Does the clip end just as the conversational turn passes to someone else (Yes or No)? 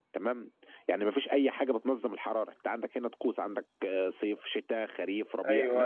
Yes